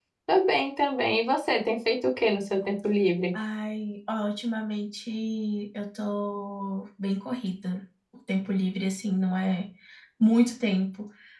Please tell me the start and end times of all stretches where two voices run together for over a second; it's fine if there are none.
none

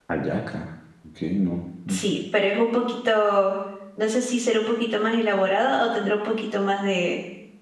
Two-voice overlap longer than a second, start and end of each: none

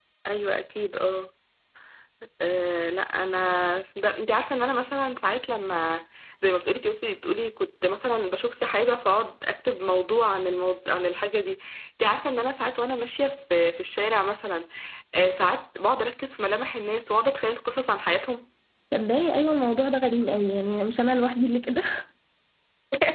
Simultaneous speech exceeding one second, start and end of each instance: none

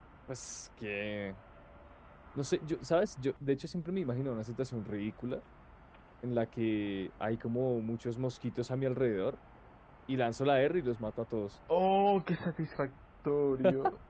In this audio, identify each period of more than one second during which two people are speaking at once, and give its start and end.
none

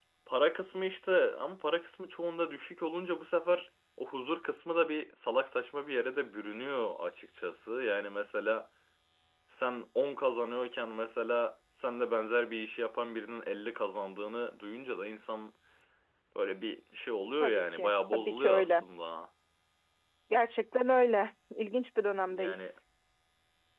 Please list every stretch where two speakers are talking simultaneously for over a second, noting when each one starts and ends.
17.4-18.8

